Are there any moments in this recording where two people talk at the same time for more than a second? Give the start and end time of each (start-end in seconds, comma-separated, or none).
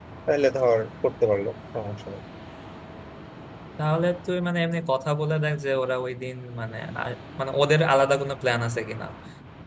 none